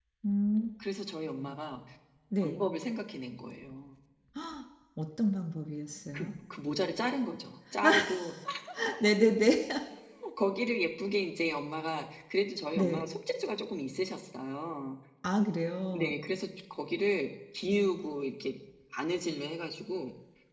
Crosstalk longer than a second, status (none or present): none